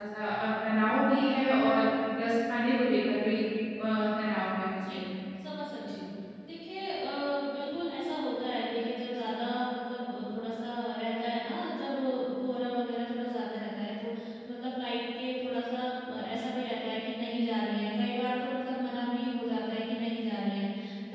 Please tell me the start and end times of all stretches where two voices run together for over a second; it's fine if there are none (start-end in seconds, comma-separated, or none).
none